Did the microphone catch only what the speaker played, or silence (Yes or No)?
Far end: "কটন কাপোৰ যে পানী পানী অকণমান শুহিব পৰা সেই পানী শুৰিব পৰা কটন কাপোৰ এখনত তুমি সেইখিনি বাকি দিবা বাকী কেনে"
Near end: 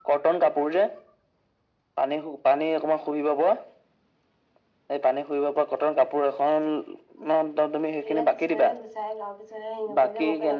No